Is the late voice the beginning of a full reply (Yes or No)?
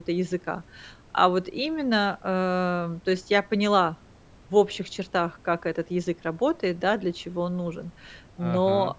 No